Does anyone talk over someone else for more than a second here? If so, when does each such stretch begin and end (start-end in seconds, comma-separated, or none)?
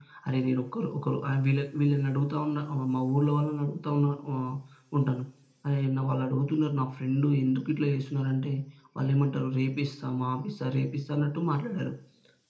none